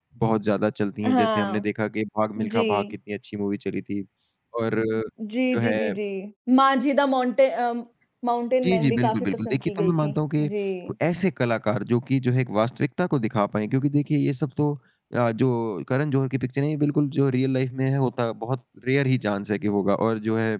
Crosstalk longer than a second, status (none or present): present